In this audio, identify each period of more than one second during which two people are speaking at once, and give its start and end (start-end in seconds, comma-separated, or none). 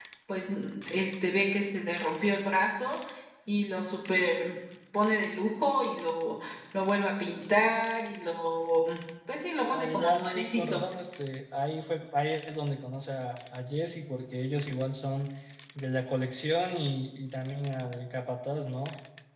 9.6-10.8